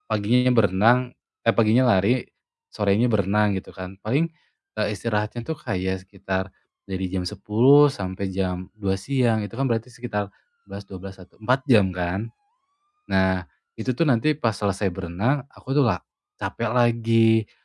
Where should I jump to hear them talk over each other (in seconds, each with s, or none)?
none